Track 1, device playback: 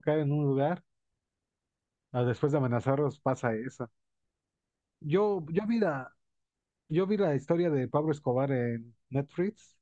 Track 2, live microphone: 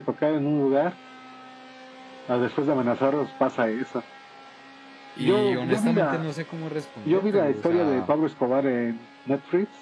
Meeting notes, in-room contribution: present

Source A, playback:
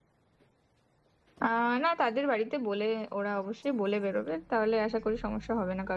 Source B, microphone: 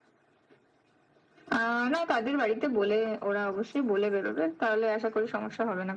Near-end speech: none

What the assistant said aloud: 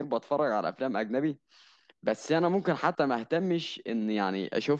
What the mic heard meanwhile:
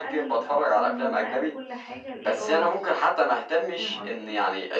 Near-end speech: present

